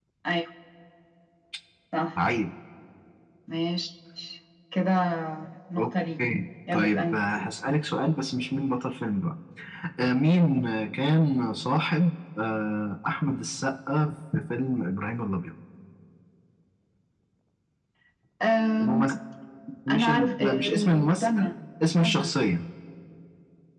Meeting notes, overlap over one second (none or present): present